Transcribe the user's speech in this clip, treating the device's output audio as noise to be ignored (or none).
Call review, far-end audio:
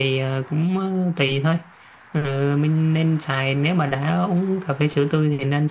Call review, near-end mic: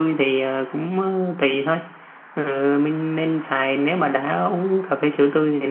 none